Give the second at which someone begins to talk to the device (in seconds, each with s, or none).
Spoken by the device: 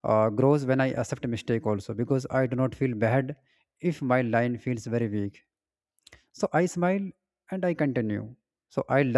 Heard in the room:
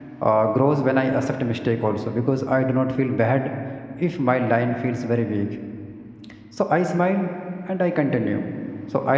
none